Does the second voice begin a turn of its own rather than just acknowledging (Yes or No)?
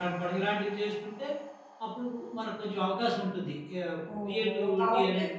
Yes